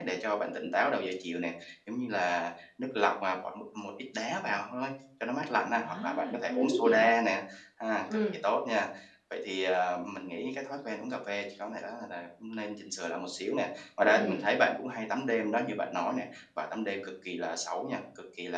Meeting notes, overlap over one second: present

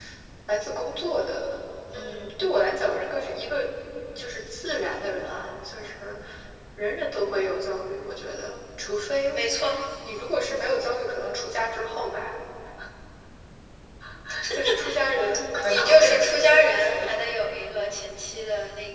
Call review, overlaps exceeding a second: present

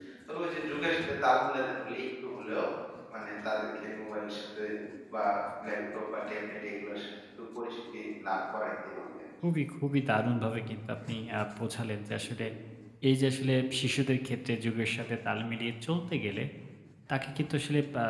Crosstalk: none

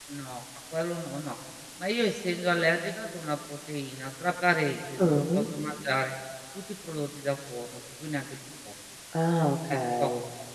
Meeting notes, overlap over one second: none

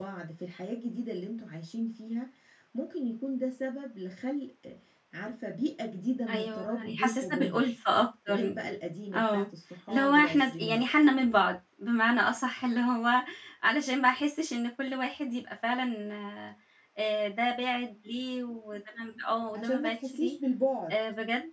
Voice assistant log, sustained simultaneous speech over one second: present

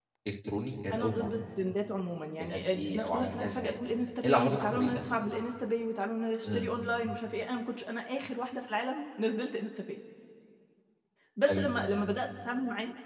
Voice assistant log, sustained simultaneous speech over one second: present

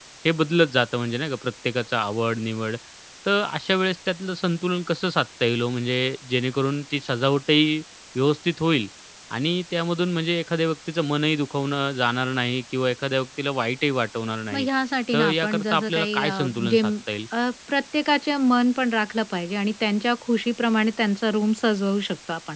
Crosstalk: present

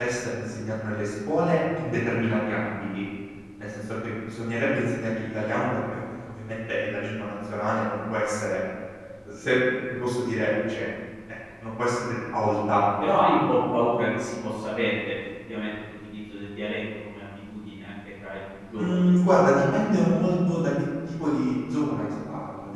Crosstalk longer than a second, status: none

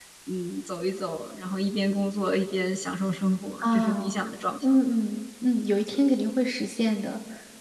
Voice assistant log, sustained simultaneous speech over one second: none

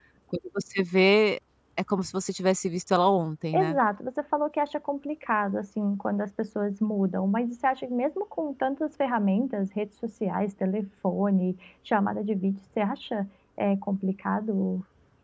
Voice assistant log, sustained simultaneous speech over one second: none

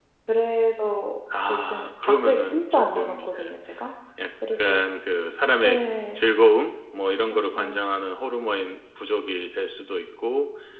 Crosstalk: present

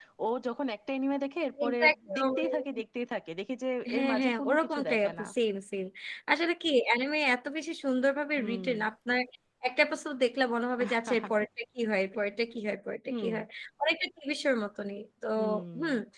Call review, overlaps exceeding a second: present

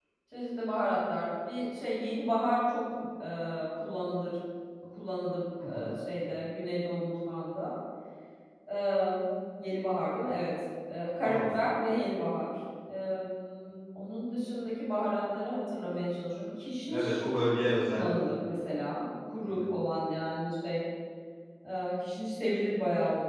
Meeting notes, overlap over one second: none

